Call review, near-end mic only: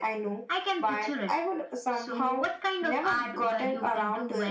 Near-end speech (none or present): none